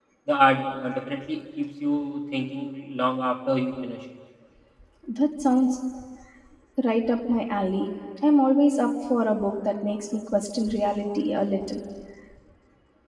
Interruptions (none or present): none